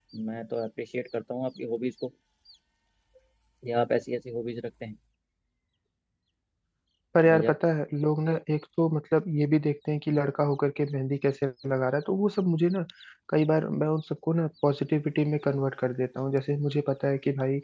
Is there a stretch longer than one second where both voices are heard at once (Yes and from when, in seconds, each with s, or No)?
No